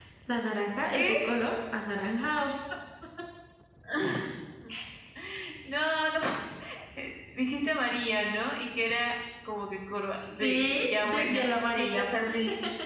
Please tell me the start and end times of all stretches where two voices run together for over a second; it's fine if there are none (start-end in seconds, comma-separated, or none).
10.4-12.0